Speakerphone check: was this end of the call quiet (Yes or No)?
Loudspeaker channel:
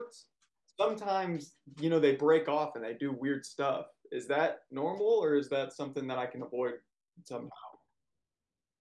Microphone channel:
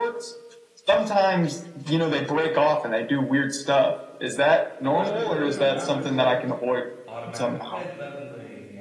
No